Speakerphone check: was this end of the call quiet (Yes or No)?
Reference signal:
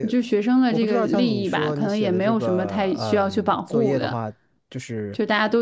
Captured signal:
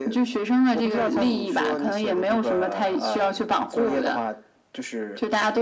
Yes